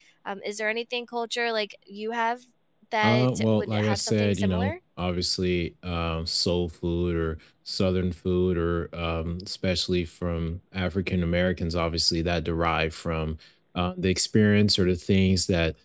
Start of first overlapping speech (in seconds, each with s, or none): 3.0 s